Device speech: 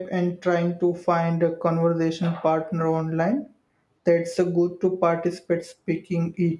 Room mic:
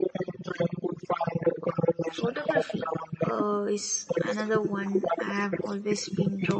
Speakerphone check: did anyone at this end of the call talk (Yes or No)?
Yes